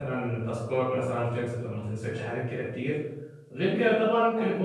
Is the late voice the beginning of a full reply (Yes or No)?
No